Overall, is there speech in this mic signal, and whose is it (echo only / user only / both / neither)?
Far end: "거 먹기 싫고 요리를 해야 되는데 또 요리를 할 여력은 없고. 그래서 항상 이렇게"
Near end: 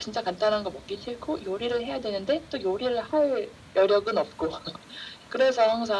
echo only